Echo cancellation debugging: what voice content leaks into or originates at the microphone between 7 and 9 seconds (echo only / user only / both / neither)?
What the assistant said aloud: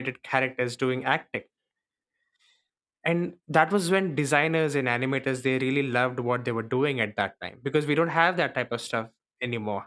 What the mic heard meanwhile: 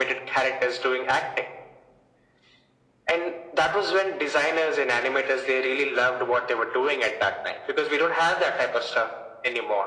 echo only